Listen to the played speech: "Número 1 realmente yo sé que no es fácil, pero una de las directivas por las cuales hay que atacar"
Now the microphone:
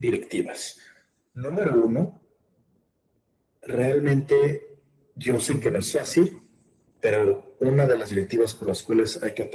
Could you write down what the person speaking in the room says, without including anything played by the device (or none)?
Ujú.